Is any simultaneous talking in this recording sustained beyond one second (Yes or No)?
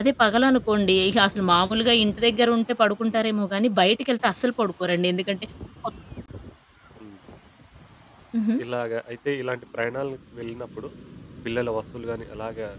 No